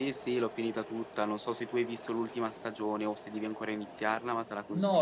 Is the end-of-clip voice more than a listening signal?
Yes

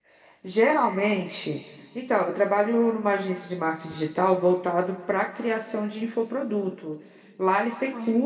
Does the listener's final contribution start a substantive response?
No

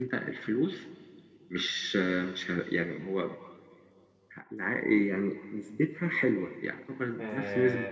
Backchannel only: No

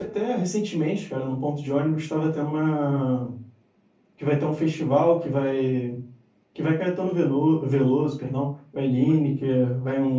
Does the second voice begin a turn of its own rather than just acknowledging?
No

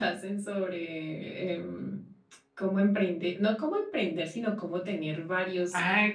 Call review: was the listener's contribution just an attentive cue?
No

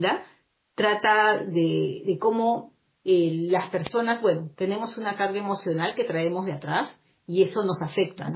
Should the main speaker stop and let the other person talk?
No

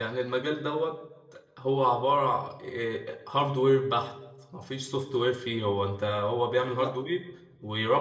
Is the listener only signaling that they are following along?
Yes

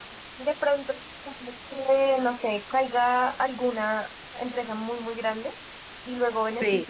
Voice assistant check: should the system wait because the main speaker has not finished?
Yes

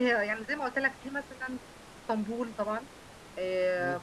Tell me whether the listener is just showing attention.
Yes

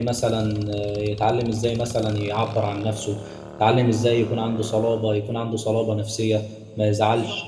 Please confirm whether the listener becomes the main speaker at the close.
No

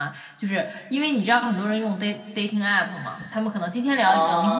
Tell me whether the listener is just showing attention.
No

